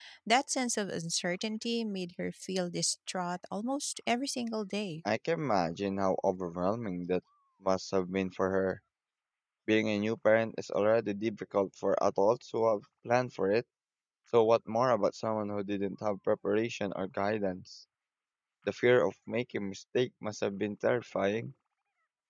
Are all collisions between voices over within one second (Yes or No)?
Yes